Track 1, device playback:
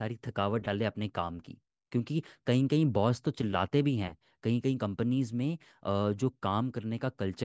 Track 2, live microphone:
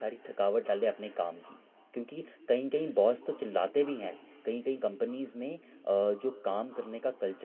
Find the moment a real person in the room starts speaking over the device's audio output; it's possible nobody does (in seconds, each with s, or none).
none